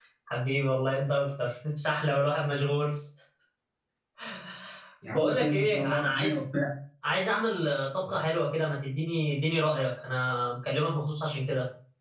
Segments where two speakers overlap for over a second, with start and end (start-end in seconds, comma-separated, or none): 5.1-6.4